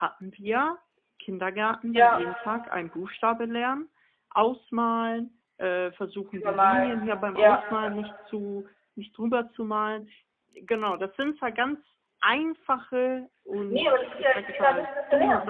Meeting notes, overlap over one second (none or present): present